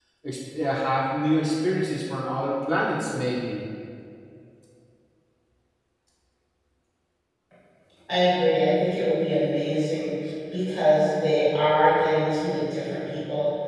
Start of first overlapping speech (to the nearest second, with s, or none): none